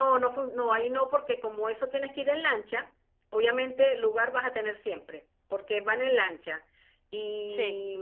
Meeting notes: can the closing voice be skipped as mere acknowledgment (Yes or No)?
Yes